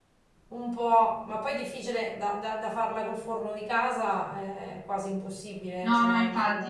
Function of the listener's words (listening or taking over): taking over